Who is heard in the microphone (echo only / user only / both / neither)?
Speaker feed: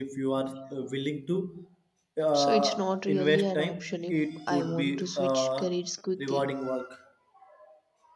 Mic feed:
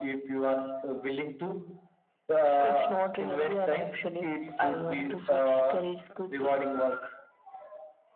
echo only